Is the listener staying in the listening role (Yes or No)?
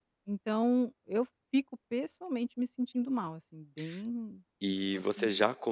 No